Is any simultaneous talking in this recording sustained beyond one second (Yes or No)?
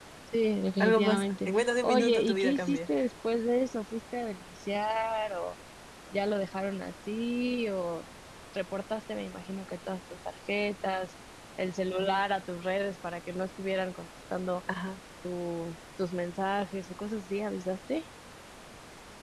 Yes